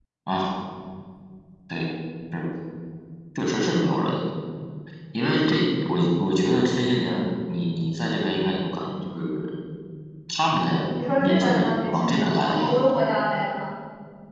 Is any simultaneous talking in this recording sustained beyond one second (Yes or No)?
Yes